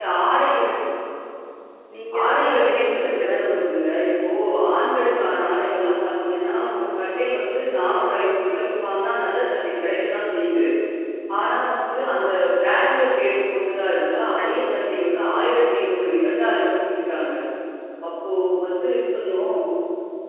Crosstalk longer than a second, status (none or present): present